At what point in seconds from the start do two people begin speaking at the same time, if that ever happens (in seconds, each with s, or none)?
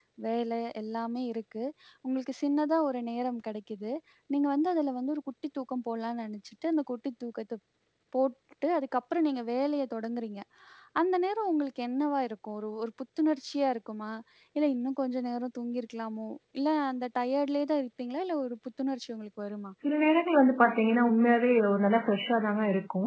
none